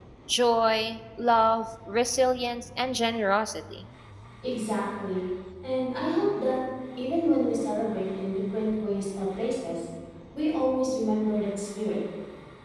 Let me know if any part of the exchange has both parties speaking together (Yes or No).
No